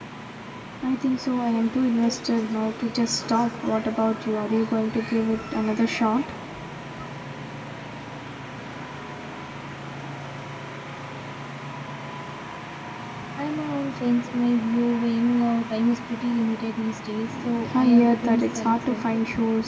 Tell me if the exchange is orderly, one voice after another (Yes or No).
No